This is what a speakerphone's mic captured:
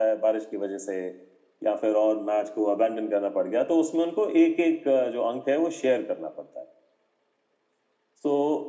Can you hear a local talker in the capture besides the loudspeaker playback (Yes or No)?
No